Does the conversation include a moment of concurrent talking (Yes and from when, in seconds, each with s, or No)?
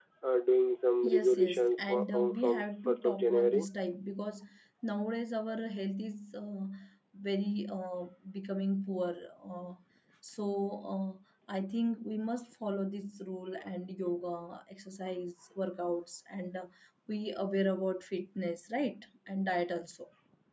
Yes, from 1.0 s